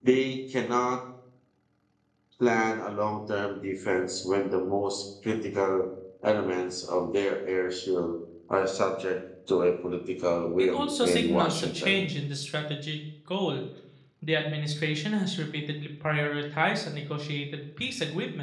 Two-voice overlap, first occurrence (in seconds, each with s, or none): 10.6 s